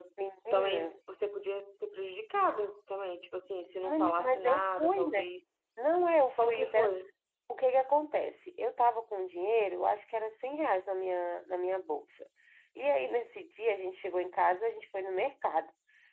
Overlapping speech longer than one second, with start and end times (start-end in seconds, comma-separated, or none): 3.8-5.3